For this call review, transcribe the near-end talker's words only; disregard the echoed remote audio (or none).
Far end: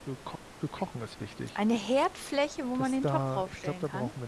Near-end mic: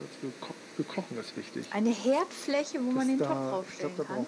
none